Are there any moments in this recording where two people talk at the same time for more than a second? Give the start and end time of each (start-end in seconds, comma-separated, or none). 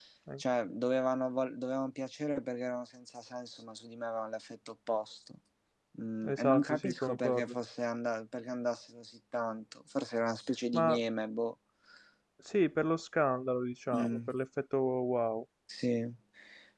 6.3-7.5